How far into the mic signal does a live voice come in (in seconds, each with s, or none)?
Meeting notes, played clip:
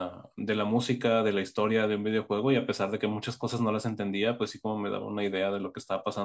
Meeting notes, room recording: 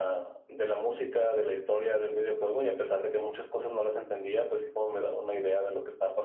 none